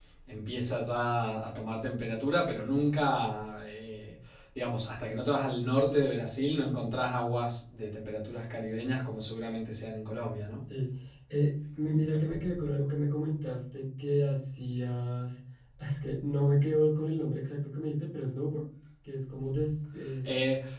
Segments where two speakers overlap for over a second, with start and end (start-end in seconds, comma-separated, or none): none